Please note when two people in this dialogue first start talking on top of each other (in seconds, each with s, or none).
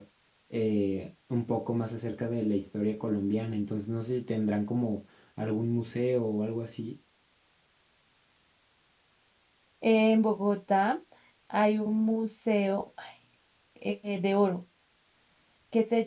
none